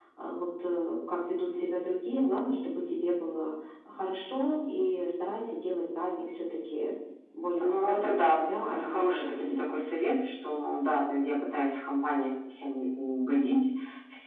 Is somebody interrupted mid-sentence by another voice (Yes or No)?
Yes